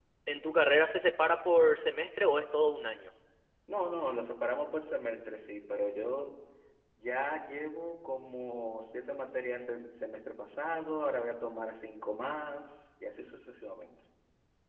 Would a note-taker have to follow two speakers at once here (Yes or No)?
No